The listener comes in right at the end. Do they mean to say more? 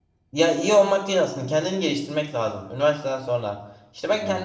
No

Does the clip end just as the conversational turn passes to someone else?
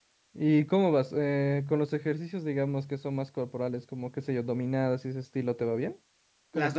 Yes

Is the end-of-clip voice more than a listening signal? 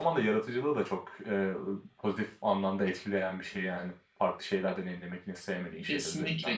Yes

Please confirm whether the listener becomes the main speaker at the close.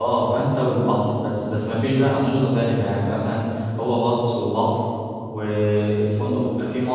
No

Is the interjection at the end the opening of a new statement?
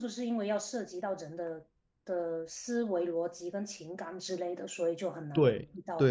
Yes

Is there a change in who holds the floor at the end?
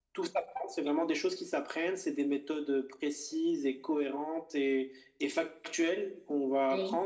No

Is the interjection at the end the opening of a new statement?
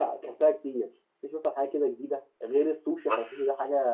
No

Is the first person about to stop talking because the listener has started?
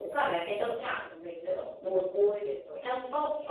Yes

